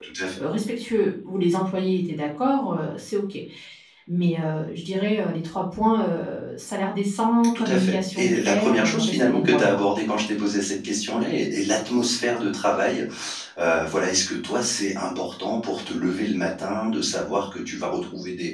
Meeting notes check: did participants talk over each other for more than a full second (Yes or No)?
Yes